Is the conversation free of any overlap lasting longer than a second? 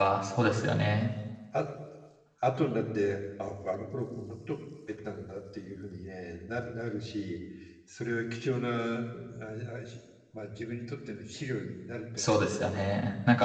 Yes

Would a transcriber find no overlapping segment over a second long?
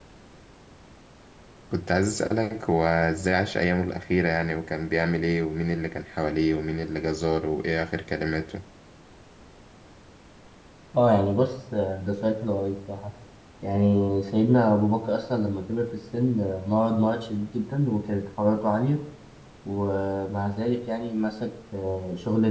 Yes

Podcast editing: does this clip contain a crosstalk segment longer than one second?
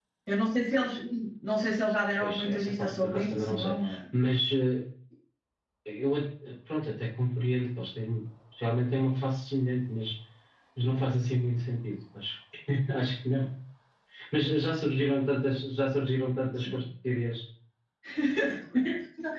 Yes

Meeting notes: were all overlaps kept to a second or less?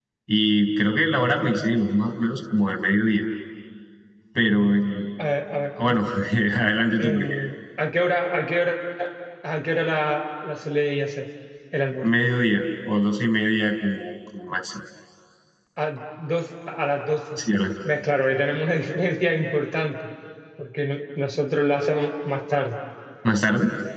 Yes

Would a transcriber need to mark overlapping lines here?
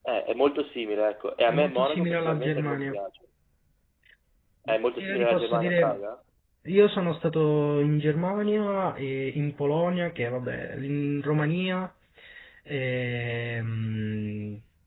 Yes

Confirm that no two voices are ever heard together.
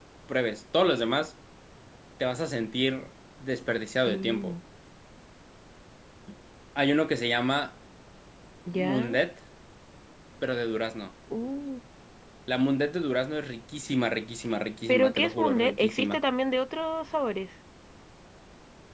No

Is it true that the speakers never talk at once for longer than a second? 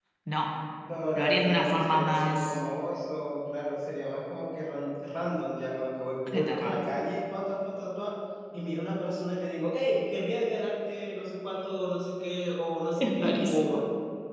No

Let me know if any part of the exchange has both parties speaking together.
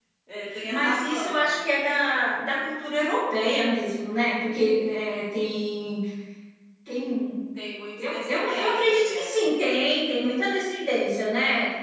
Yes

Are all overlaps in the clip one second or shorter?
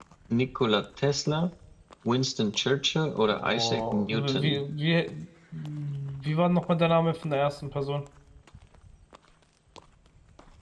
No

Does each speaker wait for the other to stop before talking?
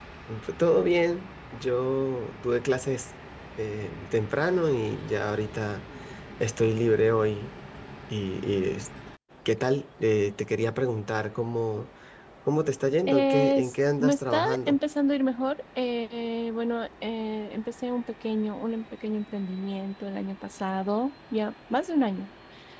No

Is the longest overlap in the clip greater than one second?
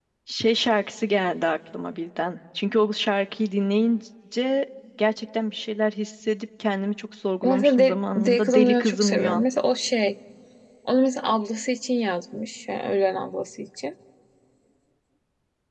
Yes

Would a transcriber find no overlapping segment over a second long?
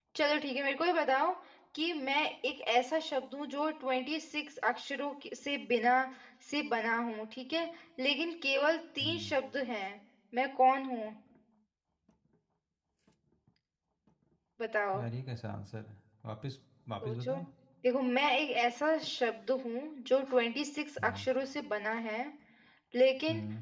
Yes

